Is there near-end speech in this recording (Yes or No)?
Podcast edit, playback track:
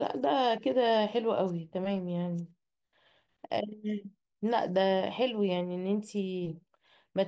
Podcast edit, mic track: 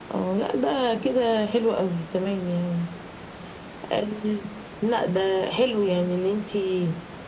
No